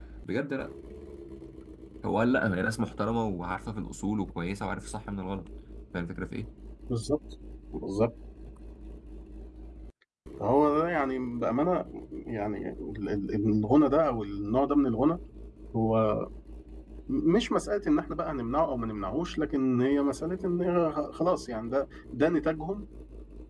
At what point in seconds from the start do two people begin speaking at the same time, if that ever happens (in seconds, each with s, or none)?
none